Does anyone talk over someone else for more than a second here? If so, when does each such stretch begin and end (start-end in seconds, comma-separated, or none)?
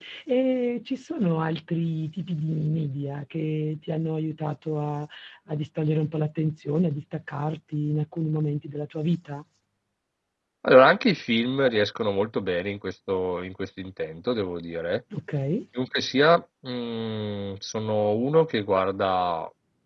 none